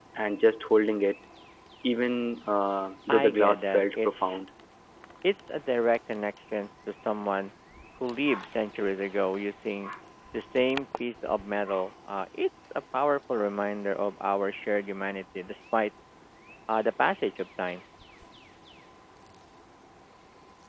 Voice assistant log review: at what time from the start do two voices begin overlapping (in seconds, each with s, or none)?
3.1 s